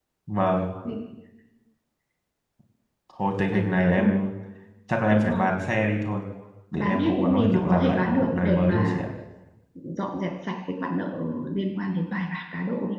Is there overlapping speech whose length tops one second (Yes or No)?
Yes